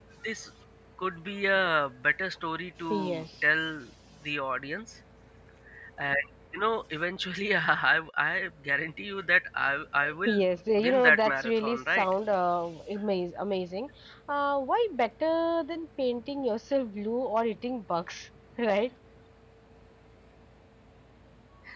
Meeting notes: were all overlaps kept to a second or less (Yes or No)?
No